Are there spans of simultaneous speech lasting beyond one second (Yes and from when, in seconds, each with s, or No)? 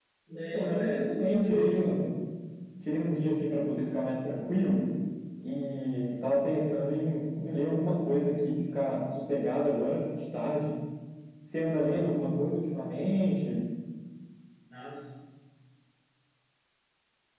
Yes, from 0.5 s